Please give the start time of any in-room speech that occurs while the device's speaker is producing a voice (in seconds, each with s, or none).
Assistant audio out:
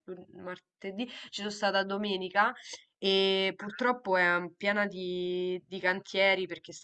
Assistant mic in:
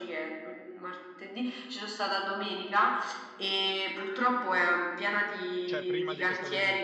5.6 s